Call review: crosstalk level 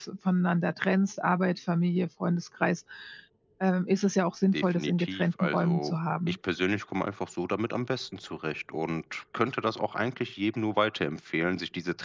present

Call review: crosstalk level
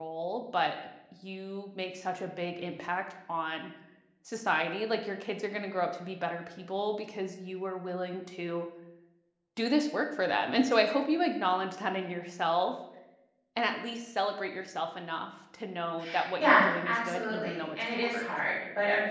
present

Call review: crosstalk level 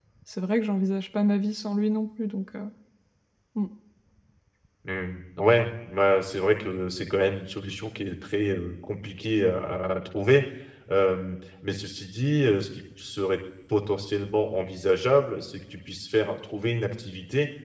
none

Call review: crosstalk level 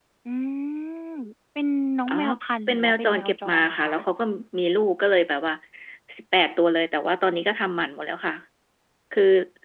present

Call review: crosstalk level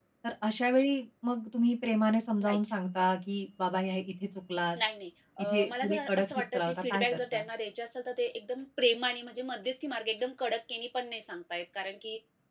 present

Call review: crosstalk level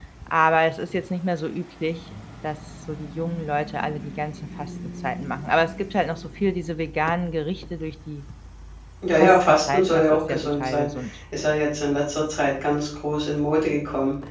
present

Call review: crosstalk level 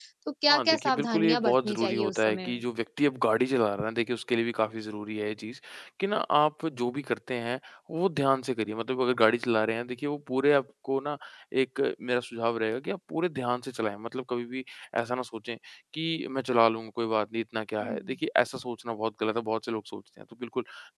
present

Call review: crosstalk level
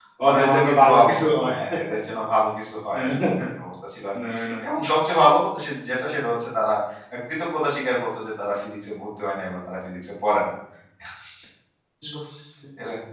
present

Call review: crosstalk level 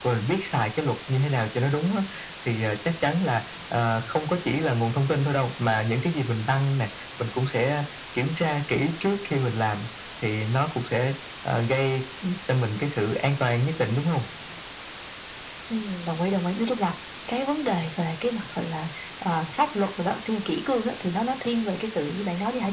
none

